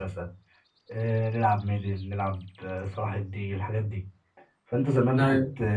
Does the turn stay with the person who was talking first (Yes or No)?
Yes